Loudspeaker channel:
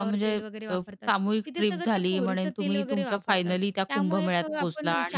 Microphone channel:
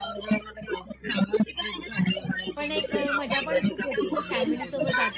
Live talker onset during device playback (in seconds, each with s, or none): 2.6 s